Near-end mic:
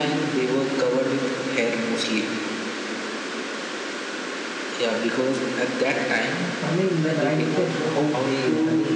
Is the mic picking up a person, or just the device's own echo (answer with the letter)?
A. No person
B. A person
B